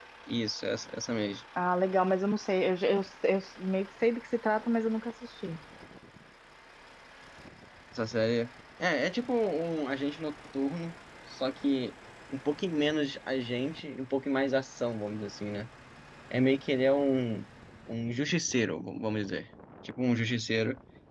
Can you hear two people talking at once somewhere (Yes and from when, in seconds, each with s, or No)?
No